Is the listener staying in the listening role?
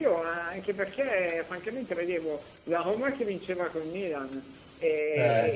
Yes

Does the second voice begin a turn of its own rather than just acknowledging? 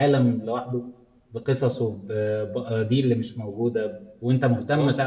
No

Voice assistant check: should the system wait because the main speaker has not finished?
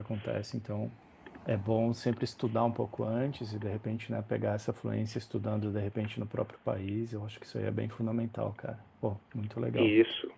No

